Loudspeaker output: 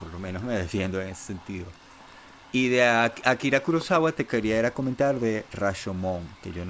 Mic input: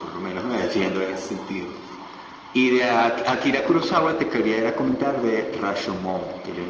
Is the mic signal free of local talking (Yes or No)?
Yes